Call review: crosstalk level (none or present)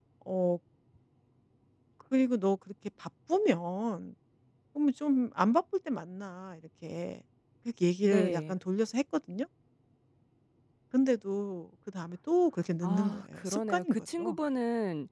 present